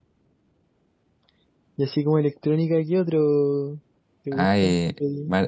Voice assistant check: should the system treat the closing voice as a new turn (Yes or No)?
Yes